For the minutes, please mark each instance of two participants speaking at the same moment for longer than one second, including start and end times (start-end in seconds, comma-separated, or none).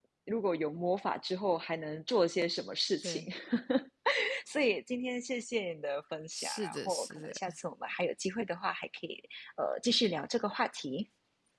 6.3-7.6